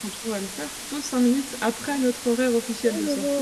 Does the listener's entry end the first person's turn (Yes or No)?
Yes